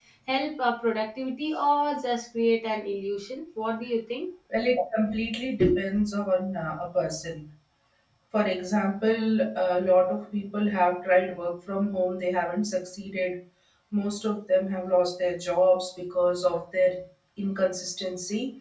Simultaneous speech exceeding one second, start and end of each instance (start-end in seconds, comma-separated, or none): none